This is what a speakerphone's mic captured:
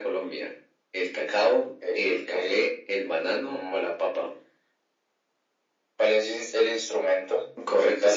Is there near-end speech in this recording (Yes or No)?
No